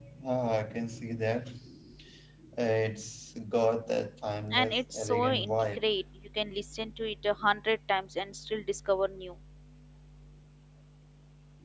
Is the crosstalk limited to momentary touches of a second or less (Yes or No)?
No